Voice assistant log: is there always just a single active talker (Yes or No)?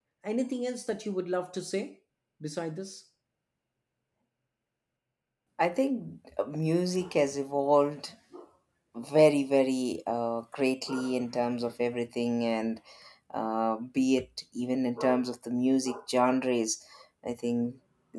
Yes